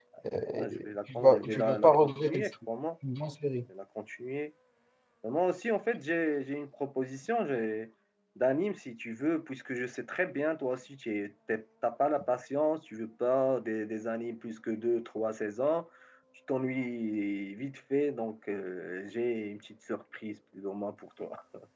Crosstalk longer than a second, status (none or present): present